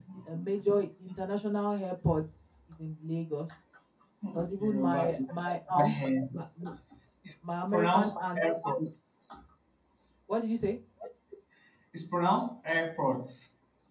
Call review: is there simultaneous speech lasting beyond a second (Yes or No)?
Yes